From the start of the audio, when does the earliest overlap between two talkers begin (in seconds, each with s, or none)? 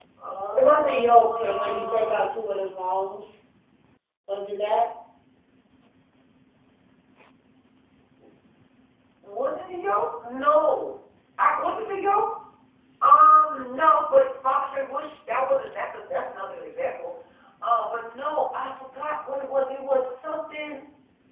0.6 s